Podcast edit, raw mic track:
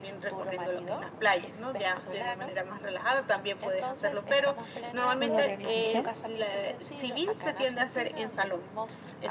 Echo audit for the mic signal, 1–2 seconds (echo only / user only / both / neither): echo only